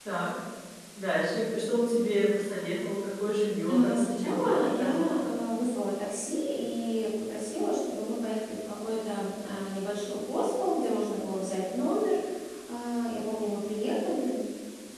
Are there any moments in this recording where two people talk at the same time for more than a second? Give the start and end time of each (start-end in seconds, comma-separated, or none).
3.7-5.1